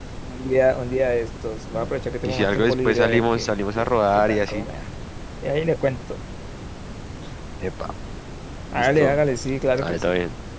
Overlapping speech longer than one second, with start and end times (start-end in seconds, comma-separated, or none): 2.2-4.7